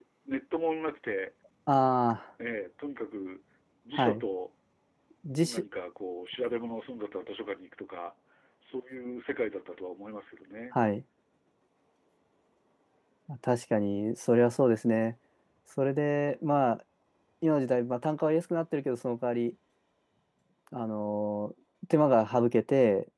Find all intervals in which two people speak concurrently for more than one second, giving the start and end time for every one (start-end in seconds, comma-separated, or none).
none